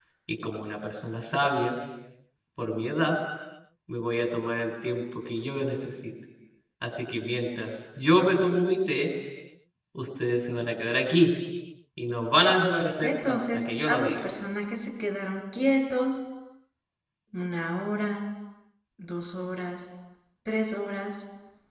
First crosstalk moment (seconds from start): 13.0 s

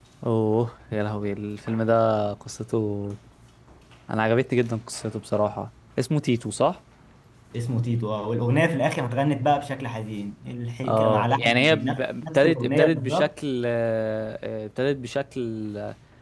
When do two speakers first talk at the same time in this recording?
10.8 s

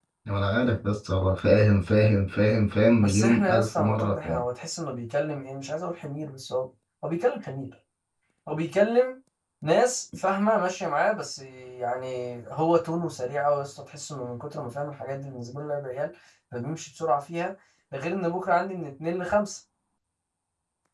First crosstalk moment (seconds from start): 3.0 s

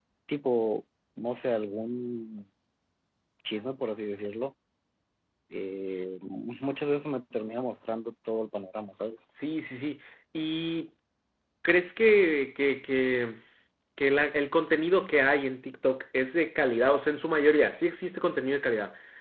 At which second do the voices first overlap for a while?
none

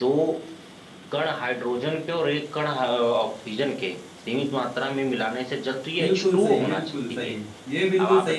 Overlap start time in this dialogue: 6.0 s

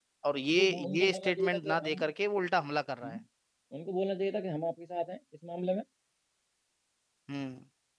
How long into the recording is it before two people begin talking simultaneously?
0.6 s

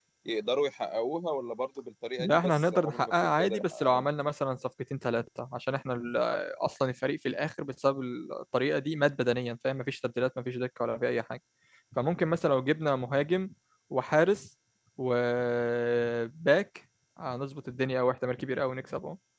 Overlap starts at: 2.2 s

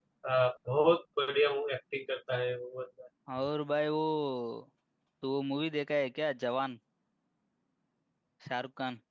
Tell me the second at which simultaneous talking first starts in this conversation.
none

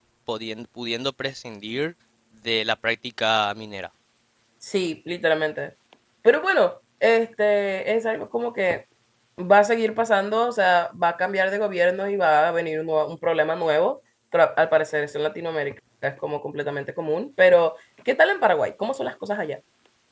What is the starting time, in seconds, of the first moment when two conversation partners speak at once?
none

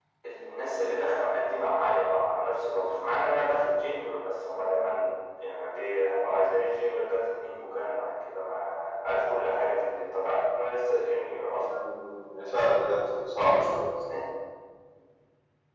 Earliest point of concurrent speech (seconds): none

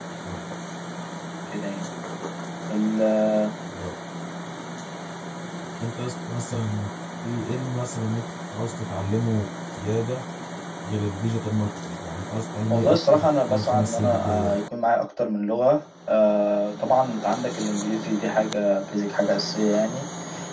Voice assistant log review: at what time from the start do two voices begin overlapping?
12.7 s

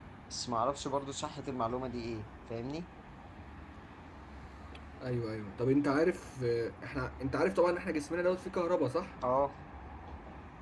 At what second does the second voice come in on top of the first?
none

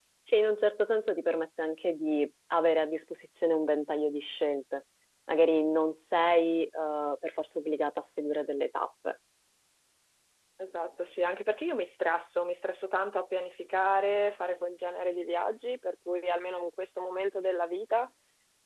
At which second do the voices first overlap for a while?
none

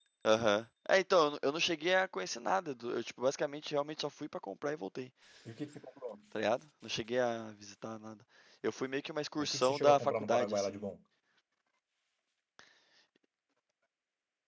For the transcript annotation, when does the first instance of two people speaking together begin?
9.4 s

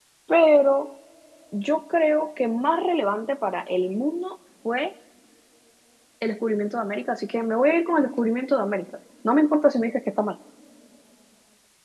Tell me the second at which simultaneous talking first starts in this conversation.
none

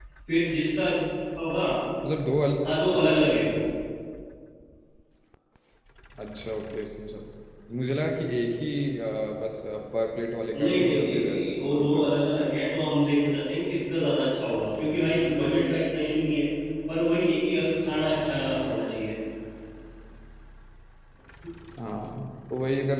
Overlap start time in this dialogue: 10.5 s

